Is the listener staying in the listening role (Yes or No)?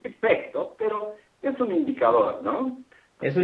No